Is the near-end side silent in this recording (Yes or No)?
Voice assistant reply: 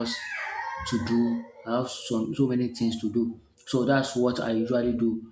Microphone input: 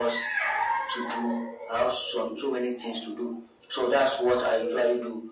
Yes